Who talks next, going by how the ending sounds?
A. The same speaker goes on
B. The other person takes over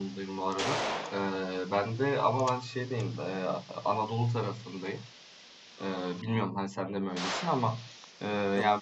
A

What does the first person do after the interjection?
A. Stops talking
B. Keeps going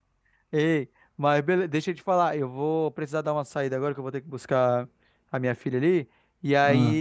B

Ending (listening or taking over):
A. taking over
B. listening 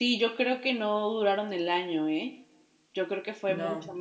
B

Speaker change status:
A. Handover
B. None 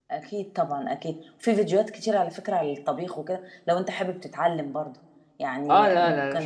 A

